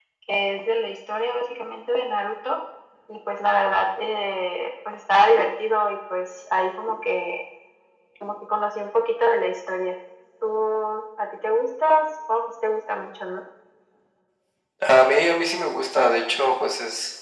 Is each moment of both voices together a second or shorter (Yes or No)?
Yes